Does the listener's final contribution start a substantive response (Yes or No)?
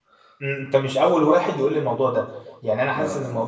No